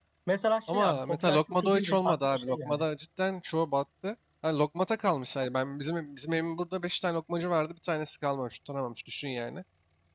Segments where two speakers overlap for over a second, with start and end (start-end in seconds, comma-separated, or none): 0.7-2.9